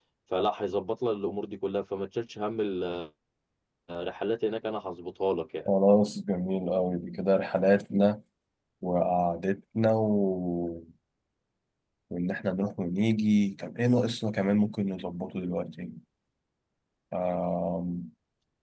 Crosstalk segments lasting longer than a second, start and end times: none

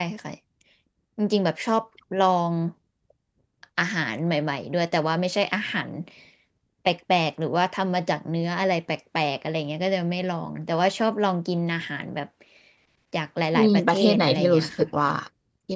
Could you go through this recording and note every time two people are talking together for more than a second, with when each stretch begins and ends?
13.6-14.9

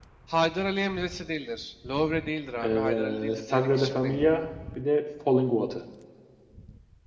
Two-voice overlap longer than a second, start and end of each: 2.6-4.3

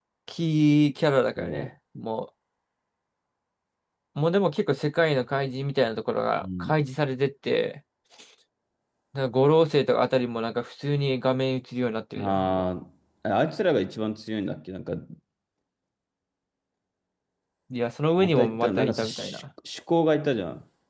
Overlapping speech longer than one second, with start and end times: 18.2-19.4

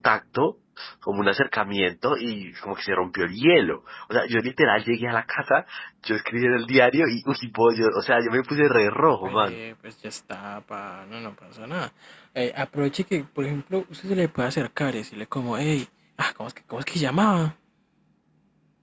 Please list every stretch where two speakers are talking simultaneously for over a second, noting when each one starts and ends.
none

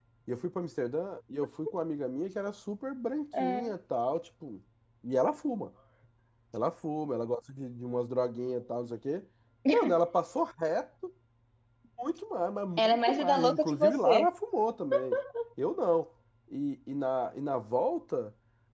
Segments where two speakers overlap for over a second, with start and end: 12.8-14.3

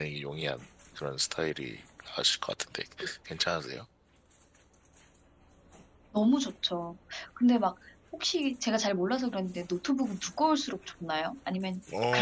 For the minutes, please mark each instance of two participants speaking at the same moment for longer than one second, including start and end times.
none

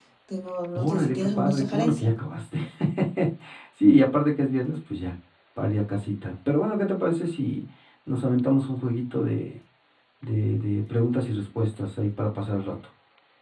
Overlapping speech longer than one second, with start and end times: 0.8-2.1

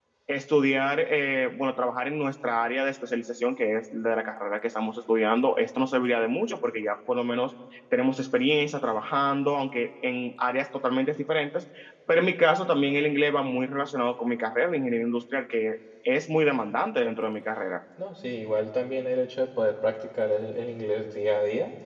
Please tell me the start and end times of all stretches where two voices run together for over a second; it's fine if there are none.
none

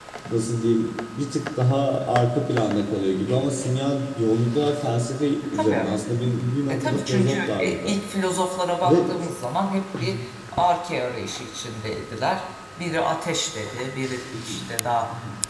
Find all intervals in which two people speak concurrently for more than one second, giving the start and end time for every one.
6.7-7.9

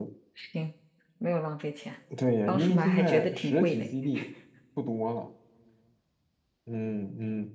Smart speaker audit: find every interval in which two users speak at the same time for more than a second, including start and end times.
2.5-3.9

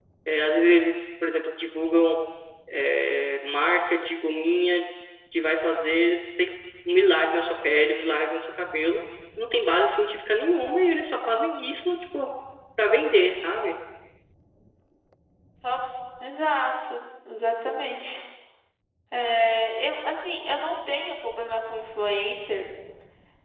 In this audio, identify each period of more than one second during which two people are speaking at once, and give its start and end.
none

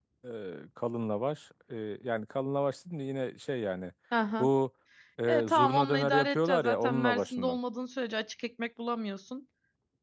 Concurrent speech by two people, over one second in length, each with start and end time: 5.3-7.6

